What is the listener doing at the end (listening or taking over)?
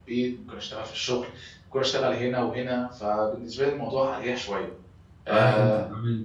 taking over